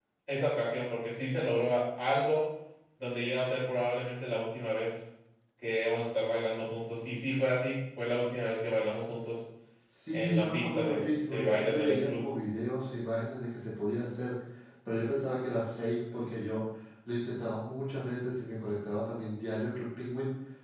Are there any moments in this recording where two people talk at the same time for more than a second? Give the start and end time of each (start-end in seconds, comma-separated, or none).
10.1-12.2